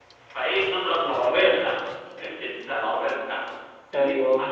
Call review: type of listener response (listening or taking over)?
listening